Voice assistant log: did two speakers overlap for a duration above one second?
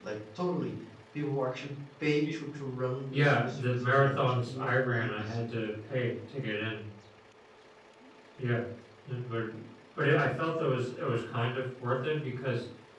Yes, from 3.1 s

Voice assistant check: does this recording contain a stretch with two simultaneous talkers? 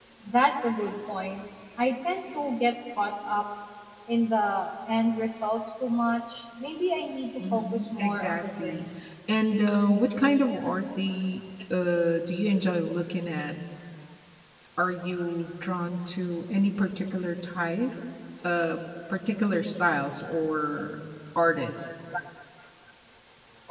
Yes, from 7.4 s

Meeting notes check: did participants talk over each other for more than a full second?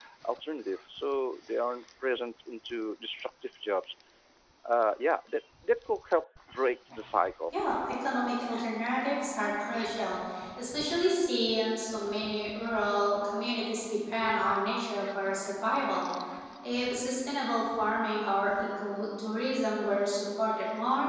No

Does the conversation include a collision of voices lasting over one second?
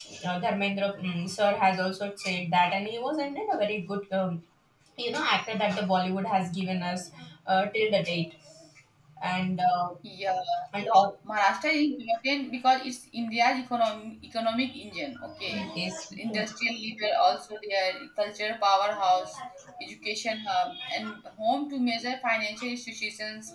No

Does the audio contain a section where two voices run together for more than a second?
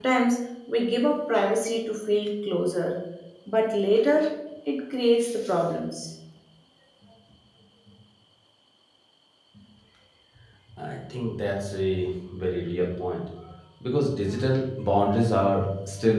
No

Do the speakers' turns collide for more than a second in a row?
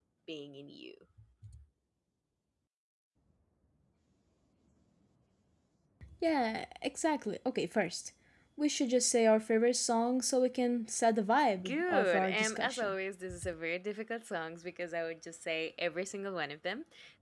Yes, from 11.5 s

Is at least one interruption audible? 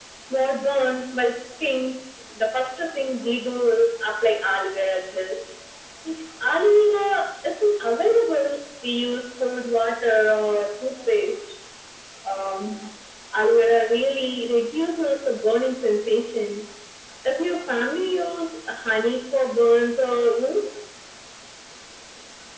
No

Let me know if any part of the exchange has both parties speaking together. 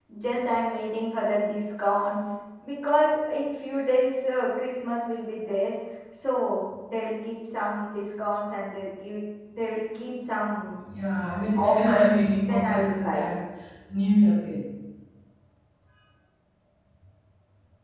Yes, from 11.6 s

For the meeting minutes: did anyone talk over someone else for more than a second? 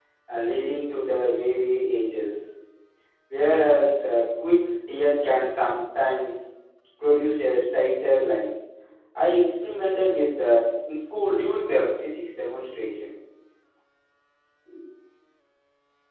No

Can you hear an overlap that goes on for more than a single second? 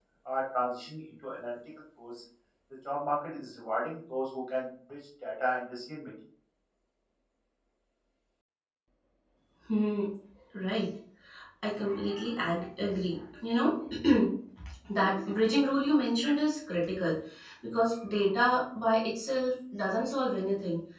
No

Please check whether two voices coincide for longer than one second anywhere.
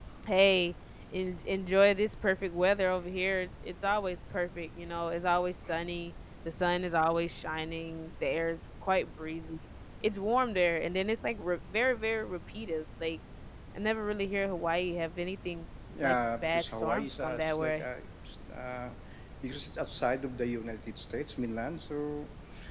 Yes, from 15.9 s

